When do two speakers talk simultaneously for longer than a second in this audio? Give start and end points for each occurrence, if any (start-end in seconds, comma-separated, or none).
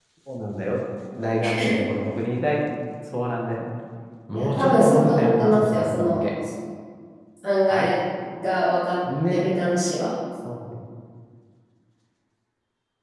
4.3-6.3